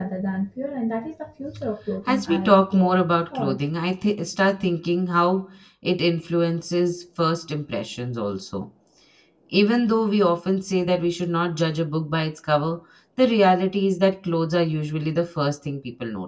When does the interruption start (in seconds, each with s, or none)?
2.1 s